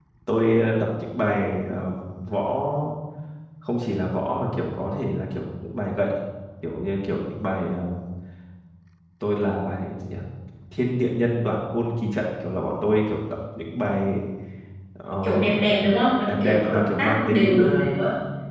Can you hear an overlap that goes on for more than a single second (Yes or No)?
Yes